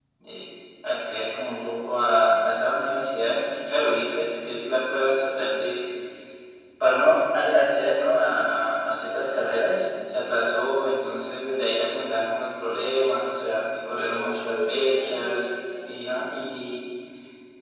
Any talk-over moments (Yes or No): Yes